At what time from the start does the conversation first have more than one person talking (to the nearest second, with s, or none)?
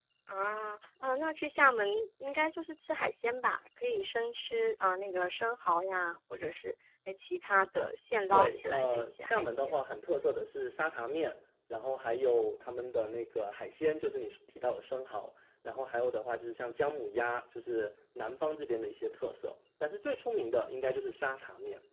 8 s